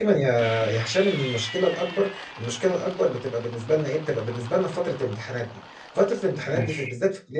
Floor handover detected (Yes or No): No